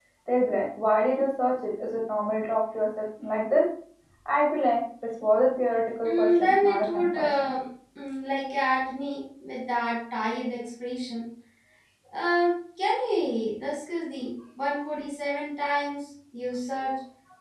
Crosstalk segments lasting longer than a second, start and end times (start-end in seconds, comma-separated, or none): 6.0-7.5